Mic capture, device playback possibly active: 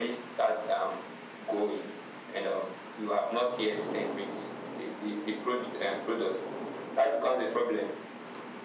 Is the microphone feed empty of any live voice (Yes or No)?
Yes